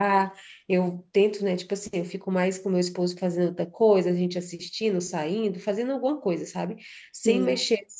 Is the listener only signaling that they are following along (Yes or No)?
Yes